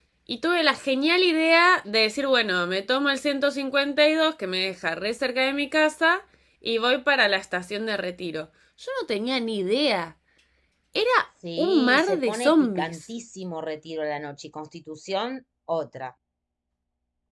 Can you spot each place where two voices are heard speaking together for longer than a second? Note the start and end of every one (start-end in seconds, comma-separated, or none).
11.6-13.0